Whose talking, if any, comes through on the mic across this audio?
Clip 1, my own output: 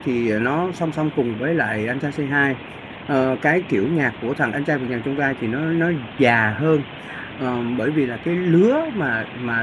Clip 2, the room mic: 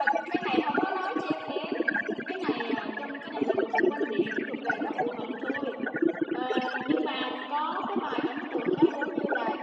both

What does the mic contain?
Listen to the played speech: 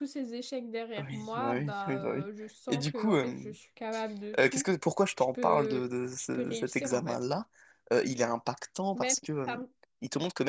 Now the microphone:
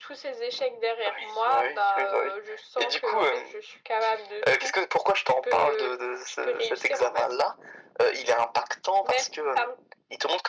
echo only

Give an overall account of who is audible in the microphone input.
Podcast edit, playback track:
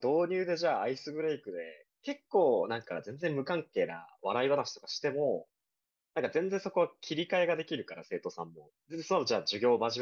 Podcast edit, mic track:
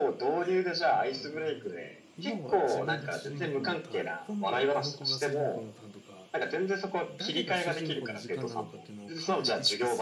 both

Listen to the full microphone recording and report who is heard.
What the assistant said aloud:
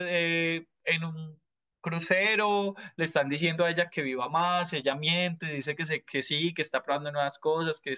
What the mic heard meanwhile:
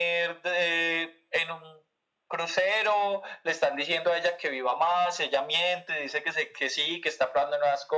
echo only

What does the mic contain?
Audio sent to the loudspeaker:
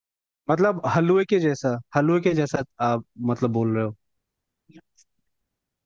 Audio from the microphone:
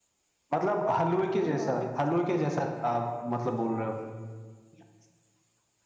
both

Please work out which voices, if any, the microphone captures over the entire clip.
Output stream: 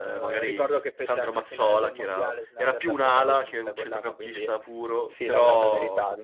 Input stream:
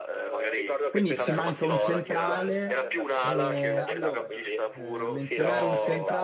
both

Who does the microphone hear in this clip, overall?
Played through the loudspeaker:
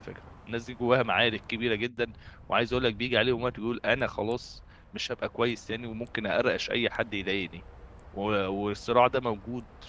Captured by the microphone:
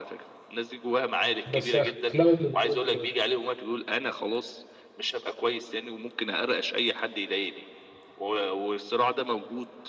both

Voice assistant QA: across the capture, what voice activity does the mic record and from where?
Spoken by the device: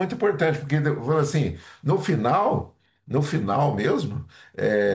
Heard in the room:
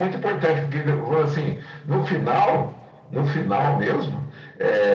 echo only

